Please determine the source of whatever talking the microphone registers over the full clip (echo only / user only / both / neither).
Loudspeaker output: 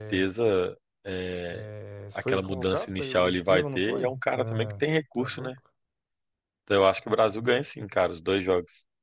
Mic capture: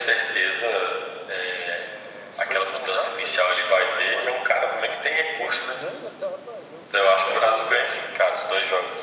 both